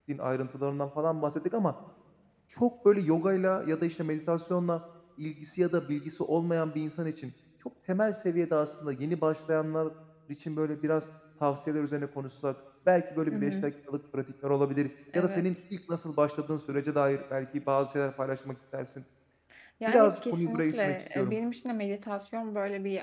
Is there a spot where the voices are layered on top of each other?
Yes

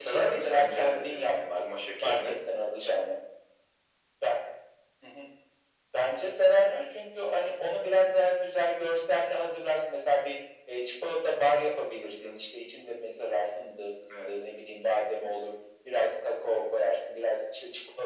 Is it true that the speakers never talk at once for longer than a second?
No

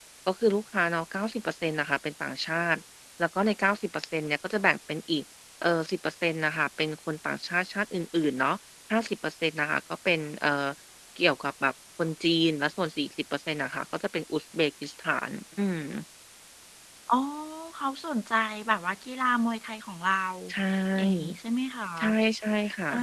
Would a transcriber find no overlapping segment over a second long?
Yes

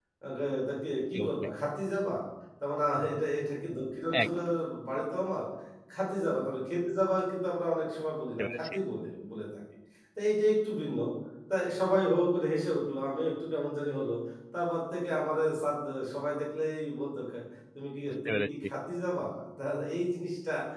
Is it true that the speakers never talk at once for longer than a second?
Yes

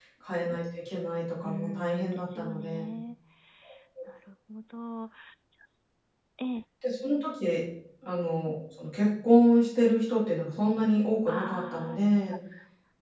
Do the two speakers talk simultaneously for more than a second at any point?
Yes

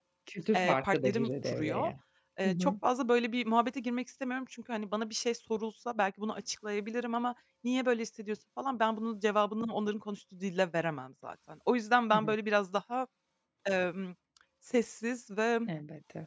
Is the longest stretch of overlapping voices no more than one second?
No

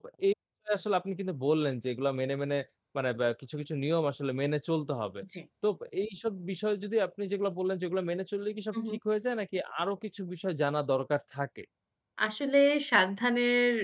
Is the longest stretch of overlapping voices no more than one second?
Yes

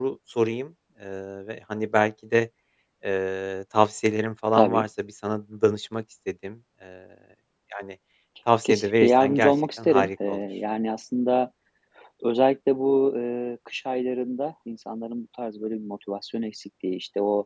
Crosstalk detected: Yes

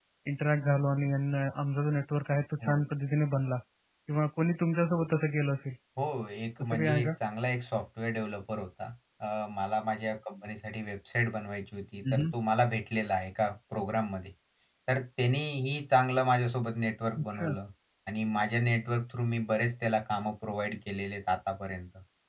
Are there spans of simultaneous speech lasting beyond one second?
No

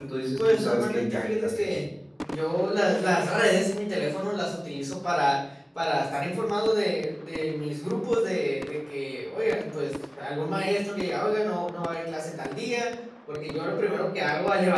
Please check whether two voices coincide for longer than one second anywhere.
Yes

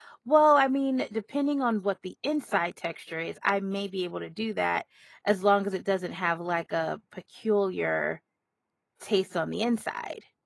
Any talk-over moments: No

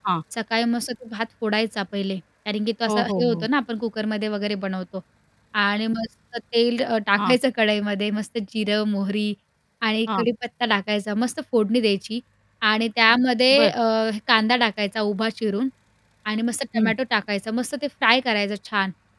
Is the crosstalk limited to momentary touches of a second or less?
Yes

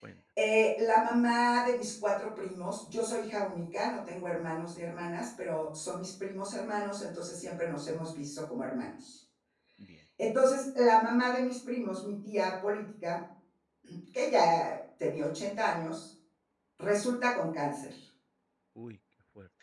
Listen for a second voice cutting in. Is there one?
No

